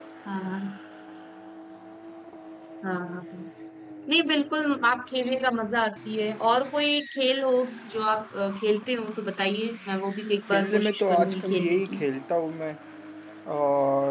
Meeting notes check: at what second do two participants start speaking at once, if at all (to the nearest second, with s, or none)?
11 s